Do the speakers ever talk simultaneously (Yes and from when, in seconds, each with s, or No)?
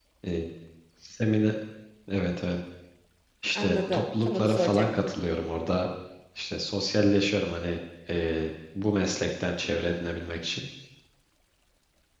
Yes, from 3.5 s